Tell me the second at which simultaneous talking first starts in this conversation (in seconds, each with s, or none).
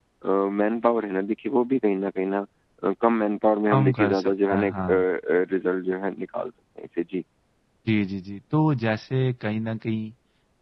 3.7 s